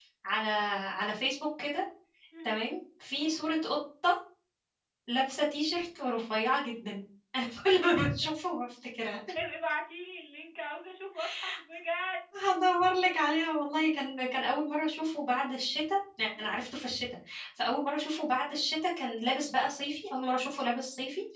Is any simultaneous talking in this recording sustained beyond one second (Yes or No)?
No